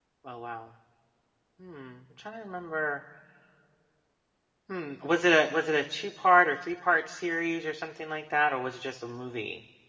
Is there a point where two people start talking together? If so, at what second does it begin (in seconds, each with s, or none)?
none